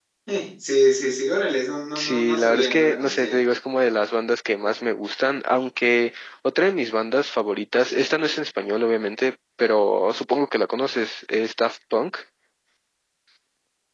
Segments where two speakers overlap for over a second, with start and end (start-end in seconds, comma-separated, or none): 1.9-3.4